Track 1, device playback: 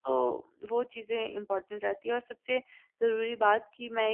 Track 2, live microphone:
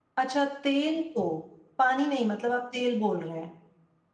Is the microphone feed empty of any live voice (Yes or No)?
No